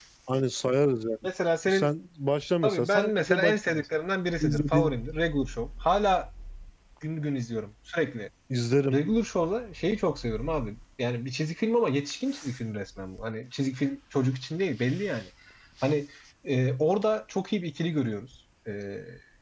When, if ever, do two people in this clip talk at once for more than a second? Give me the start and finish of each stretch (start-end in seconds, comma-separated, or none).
2.6-3.9